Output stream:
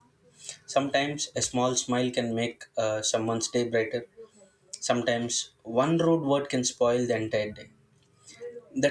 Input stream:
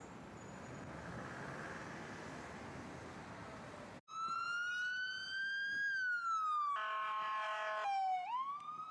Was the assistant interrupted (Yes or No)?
No